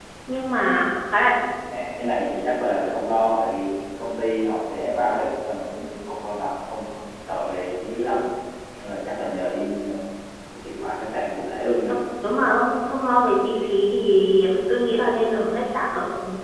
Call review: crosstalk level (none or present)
none